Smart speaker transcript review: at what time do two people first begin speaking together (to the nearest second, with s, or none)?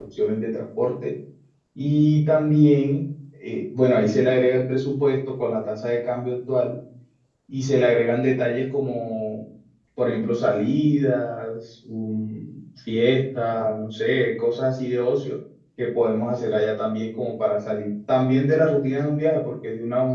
none